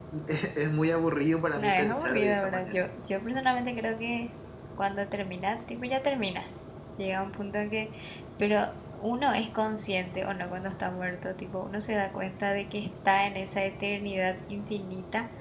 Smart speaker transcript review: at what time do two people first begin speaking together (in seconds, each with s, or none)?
1.6 s